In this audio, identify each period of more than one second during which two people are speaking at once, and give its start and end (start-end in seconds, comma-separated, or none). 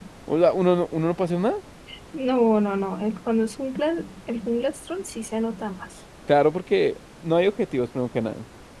none